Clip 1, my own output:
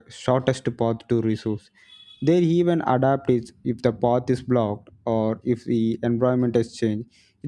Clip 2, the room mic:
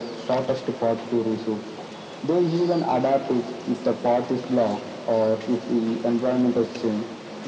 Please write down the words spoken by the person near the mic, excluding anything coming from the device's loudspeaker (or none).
none